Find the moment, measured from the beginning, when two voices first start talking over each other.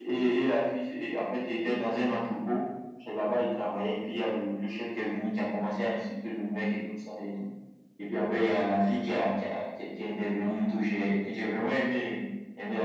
none

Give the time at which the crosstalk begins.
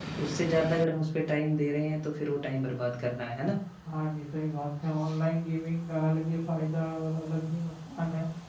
none

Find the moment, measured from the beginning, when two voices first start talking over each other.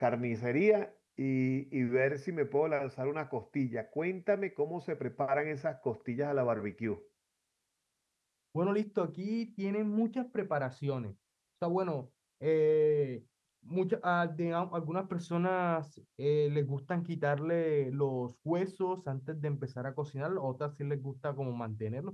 none

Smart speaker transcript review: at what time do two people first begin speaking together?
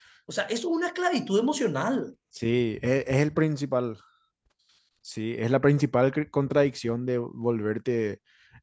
none

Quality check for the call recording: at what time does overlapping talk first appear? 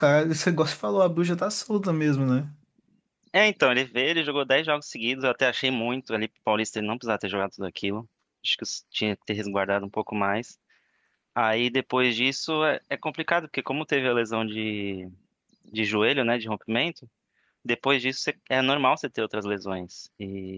none

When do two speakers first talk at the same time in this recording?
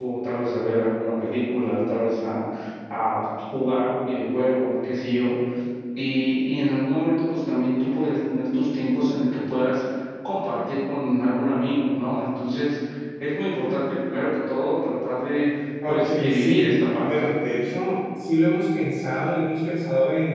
15.8 s

